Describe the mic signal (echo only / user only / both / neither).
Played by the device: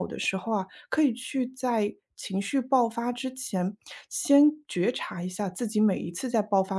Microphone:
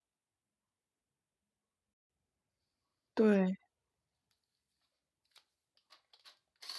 user only